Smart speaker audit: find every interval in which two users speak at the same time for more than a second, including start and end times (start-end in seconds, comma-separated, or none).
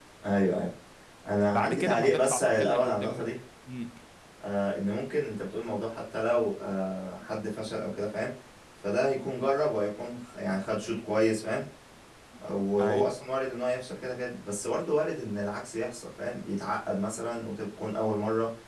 1.5-3.3